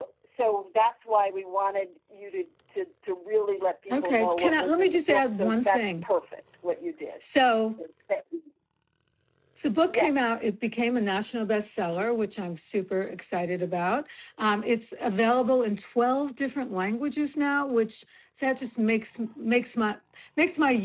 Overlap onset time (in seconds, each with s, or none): 3.9 s